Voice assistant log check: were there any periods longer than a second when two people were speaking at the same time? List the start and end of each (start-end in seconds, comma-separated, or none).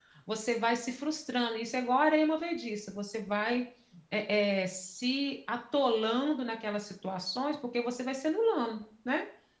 none